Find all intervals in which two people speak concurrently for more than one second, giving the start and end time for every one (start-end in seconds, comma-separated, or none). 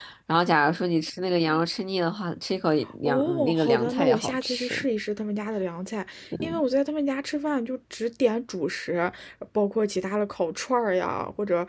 3.0-4.8